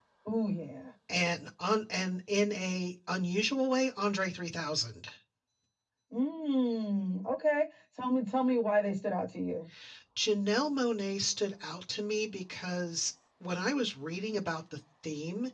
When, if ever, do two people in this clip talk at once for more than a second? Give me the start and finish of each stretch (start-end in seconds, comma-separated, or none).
none